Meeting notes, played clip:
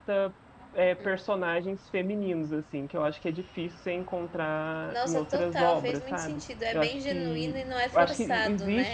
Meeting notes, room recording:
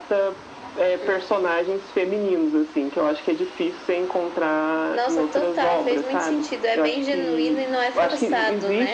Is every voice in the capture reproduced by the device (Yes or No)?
Yes